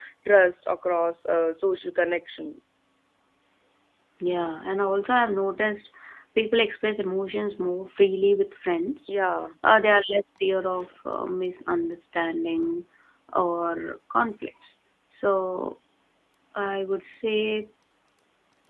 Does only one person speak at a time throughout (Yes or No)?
Yes